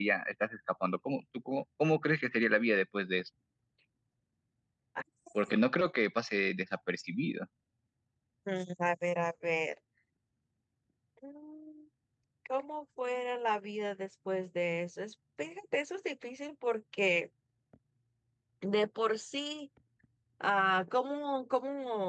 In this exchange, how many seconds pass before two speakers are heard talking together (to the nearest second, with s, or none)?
none